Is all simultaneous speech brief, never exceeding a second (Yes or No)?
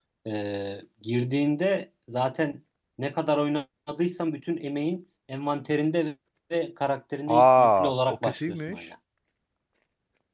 No